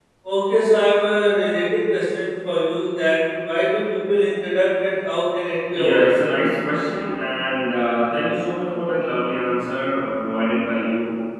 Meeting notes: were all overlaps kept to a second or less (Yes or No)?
Yes